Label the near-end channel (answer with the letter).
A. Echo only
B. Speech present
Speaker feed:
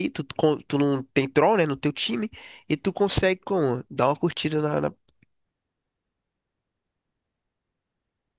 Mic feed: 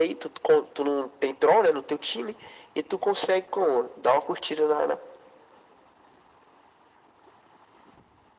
A